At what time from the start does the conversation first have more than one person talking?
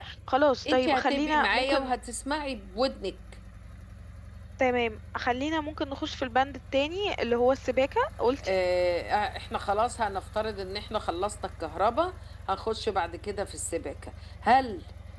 1 s

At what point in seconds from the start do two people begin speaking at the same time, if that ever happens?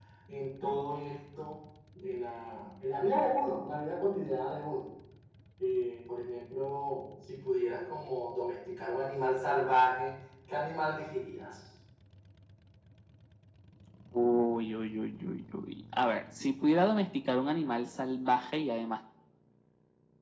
none

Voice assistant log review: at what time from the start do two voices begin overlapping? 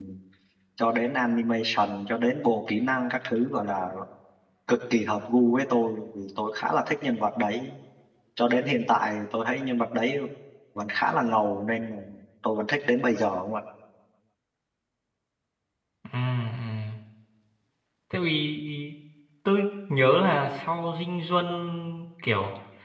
none

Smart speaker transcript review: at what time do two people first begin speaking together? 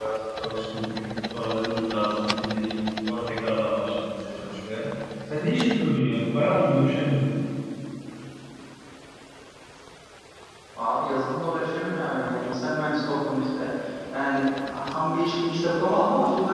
none

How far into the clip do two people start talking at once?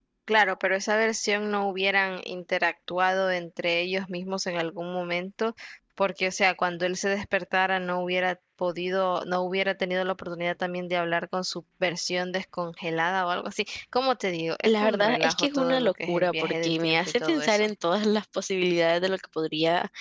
15 s

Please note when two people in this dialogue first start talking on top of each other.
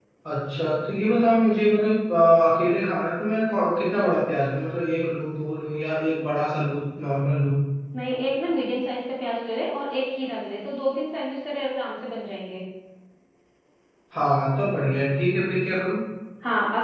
none

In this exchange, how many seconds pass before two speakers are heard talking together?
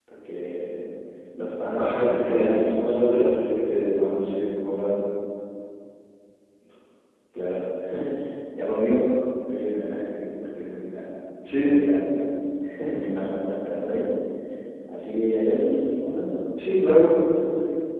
2 s

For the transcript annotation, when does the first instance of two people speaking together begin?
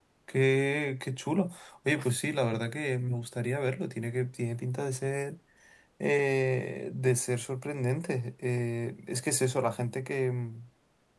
none

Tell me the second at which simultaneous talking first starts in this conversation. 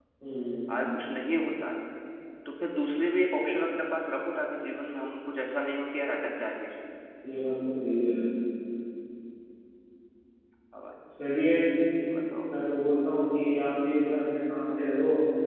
none

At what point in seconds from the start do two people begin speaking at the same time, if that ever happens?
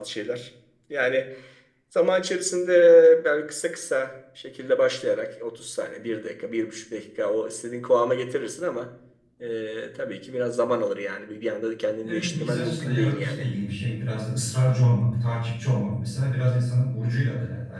12 s

